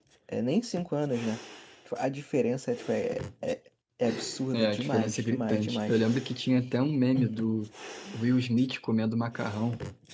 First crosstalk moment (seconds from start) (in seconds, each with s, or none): 4.5 s